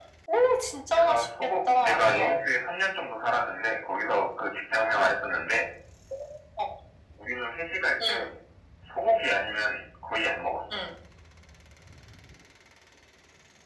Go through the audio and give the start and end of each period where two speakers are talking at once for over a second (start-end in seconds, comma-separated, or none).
1.0-2.4